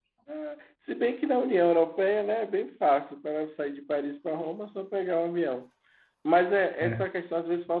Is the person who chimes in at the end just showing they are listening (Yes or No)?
Yes